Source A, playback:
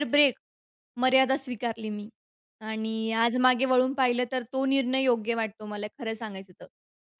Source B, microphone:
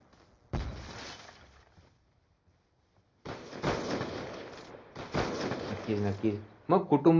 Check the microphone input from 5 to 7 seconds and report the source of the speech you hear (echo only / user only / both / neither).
user only